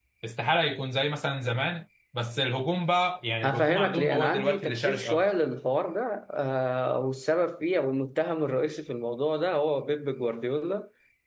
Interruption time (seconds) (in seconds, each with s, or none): 3.4 s